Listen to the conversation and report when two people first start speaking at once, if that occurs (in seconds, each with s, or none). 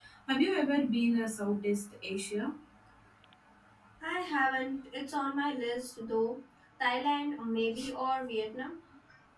none